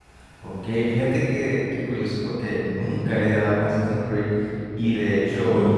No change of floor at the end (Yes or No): Yes